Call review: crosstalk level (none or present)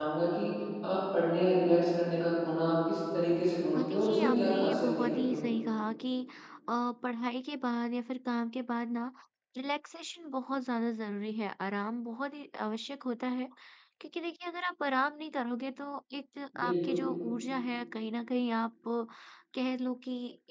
present